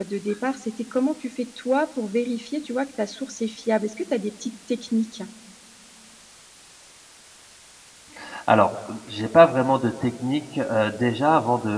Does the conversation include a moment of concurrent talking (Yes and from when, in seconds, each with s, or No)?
No